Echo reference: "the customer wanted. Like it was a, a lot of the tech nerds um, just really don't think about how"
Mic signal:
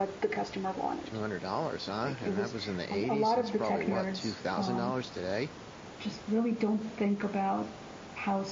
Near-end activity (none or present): present